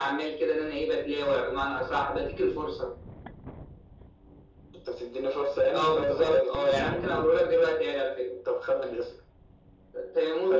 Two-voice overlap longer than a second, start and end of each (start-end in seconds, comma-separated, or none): 5.7-7.0